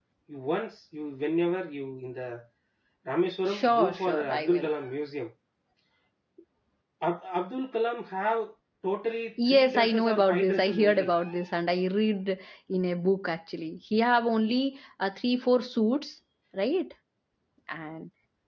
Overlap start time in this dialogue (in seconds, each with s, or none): 3.5 s